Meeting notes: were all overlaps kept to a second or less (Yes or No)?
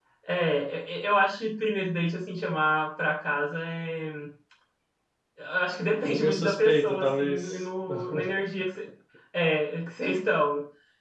No